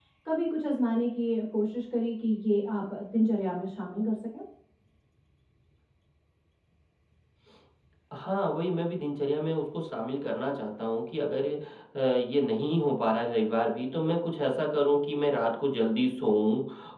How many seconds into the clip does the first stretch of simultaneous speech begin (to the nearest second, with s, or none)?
none